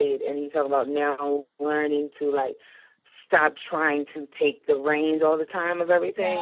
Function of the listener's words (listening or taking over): listening